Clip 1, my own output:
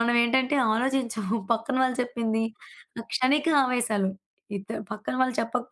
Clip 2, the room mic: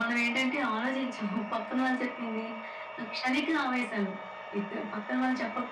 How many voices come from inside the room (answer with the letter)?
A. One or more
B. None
B